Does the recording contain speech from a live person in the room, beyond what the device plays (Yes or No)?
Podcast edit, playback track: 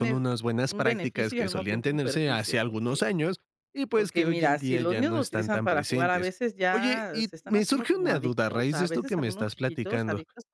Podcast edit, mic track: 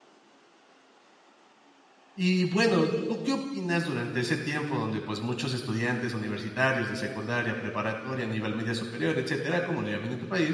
Yes